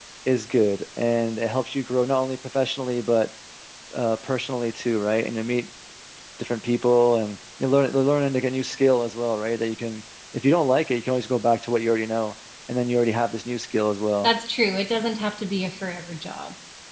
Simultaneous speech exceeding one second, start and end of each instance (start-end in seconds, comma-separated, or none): none